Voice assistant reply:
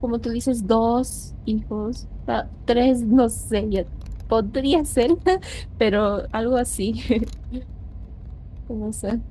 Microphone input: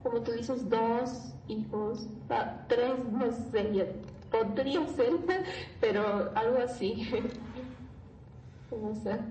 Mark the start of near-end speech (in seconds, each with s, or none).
none